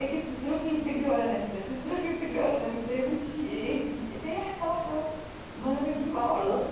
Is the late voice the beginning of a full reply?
Yes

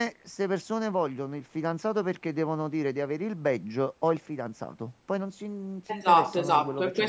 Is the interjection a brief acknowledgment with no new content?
No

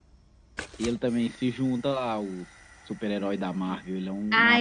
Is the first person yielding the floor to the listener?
Yes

